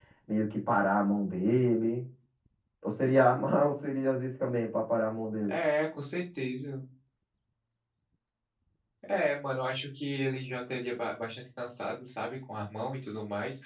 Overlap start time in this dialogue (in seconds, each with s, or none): none